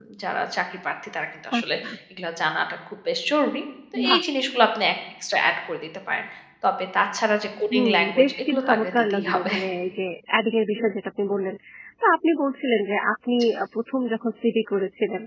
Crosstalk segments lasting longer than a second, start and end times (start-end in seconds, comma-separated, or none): 7.7-9.5